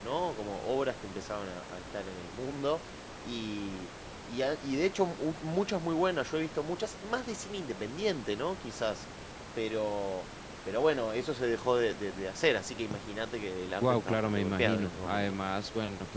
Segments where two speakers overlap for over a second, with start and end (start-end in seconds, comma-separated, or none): 13.8-15.4